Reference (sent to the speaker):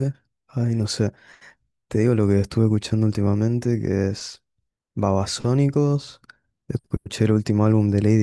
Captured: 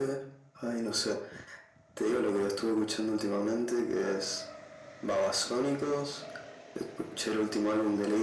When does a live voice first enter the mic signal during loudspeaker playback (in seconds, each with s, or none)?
none